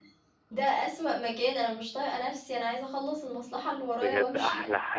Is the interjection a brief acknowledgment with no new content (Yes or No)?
No